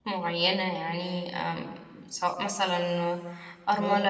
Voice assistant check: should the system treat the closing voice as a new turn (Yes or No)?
Yes